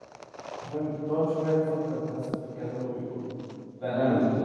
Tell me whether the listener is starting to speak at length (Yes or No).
Yes